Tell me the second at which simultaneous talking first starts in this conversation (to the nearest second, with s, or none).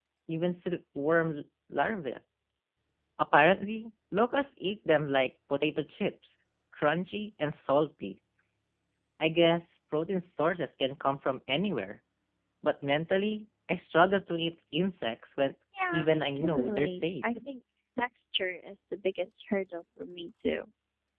16 s